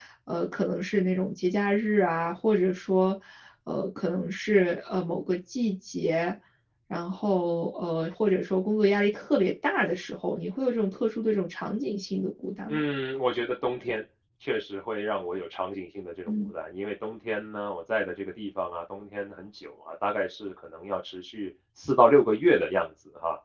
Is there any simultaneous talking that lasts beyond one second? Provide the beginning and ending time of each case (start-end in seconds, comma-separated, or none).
none